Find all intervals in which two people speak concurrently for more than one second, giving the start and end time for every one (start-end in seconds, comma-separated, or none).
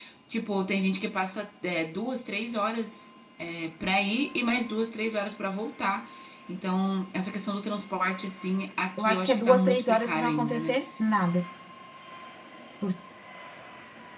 9.0-10.8